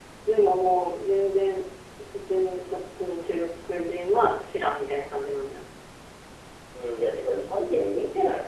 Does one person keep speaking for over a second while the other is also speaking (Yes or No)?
No